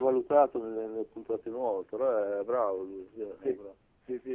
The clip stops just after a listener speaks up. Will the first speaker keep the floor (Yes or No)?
No